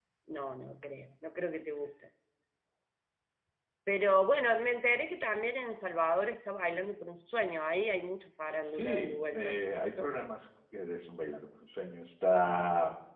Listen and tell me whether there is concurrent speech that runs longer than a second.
Yes, from 8.6 s

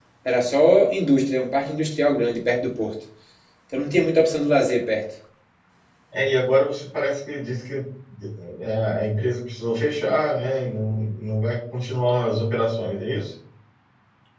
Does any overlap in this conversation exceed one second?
No

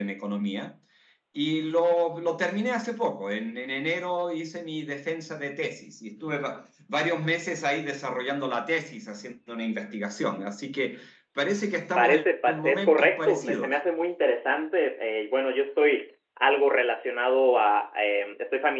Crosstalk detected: Yes, from 12.0 s

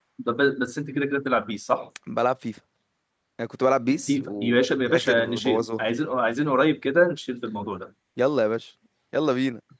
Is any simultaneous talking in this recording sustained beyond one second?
Yes, from 4.1 s

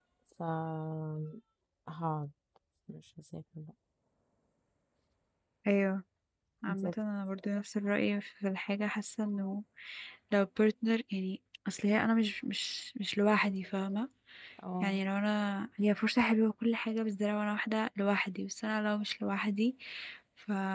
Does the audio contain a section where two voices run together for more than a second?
No

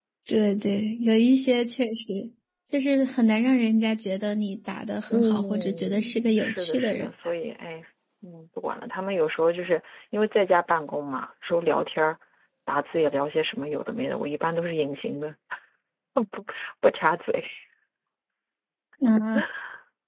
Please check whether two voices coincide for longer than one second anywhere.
Yes, from 5.1 s

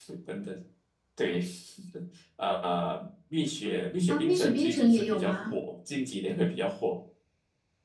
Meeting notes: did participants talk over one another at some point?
Yes, from 4.1 s

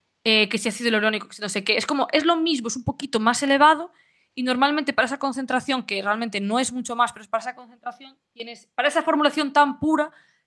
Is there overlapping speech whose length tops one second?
No

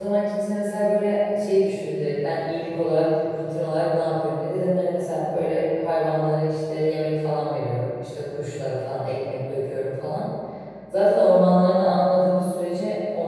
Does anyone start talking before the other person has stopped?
No

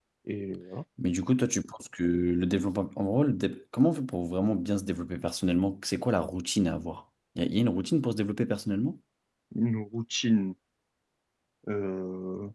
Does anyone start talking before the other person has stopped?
No

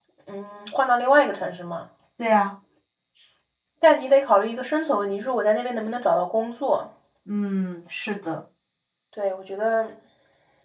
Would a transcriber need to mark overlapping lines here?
No

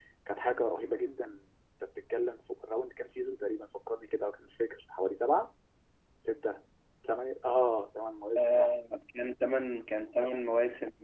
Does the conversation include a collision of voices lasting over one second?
No

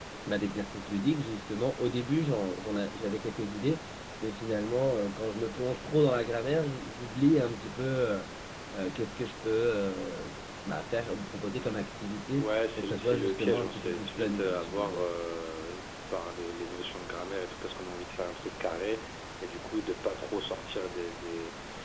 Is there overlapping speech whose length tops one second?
Yes, from 12.4 s

